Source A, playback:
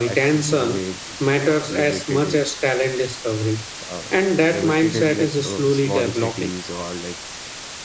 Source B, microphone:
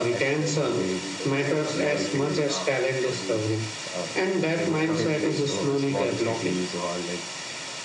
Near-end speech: present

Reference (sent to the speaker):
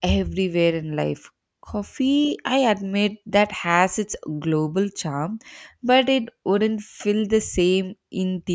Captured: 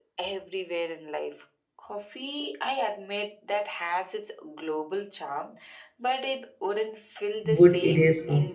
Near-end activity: present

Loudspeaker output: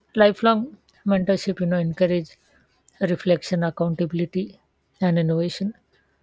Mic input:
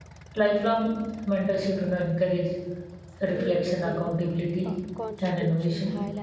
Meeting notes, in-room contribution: present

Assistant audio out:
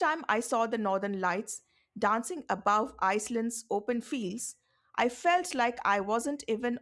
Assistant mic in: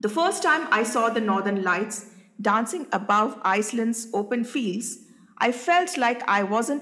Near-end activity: none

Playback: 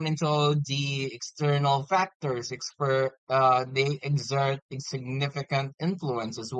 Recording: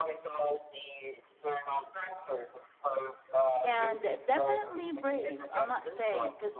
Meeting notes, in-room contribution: present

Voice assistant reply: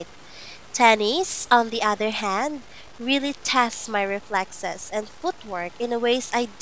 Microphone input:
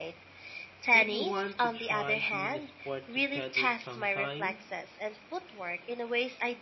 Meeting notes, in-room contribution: present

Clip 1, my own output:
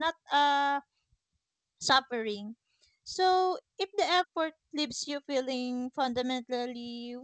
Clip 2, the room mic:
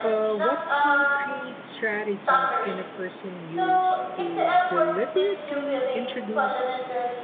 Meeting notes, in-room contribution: present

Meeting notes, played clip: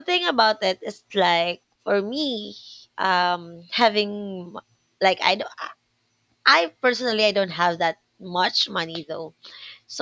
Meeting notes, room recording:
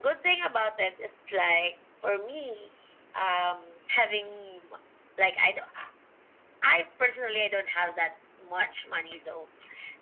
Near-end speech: none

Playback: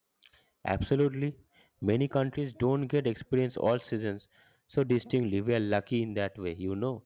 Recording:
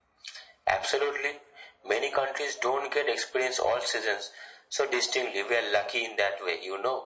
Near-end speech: none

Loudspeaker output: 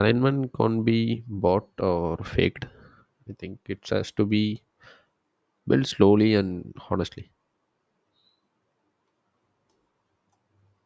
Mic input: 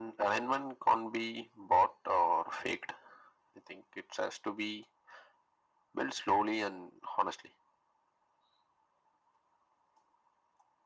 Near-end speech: none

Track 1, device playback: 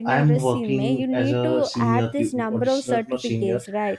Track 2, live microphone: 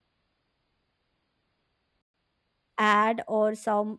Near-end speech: present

